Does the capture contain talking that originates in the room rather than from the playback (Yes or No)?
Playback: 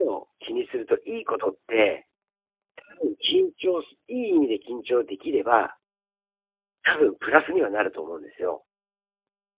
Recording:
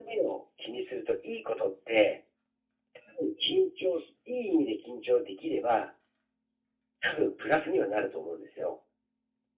No